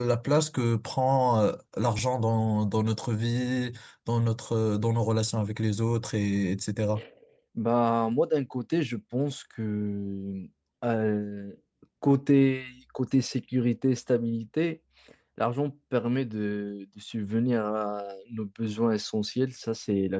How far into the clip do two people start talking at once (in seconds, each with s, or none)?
none